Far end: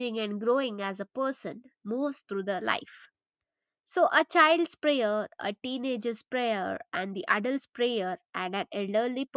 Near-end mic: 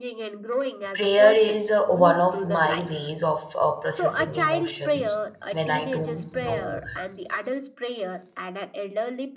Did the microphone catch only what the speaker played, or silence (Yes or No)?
No